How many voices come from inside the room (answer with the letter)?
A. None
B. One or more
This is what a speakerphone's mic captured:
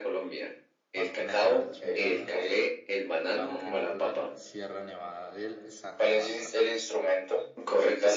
B